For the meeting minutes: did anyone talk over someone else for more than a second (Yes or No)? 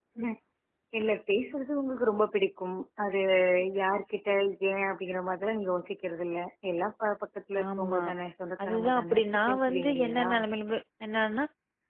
Yes